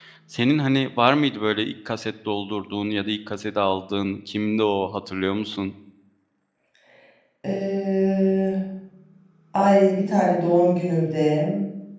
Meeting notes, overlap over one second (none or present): none